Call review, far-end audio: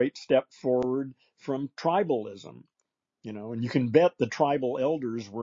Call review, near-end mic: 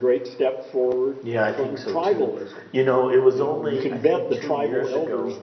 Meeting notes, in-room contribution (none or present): present